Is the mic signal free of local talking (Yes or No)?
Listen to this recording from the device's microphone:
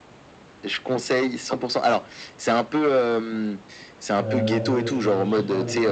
No